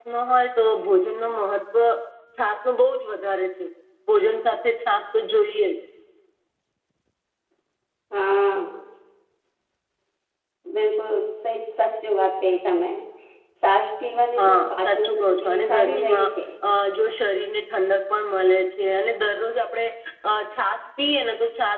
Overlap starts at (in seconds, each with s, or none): 14.4 s